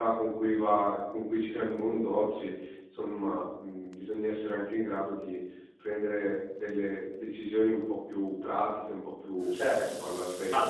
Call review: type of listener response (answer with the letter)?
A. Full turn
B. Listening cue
A